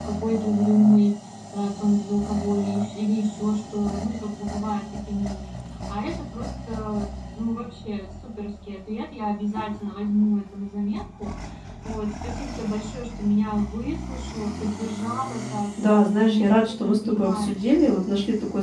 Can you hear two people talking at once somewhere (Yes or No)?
Yes